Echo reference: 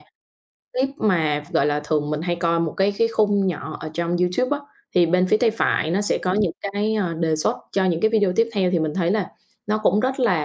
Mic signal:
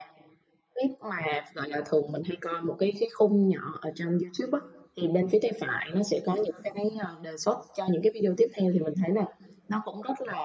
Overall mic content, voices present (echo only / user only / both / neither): echo only